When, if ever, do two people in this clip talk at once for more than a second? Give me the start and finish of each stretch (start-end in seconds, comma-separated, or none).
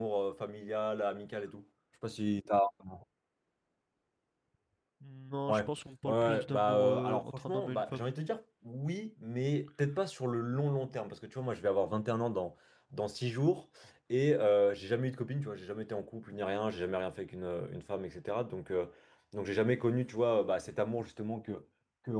6.0-8.1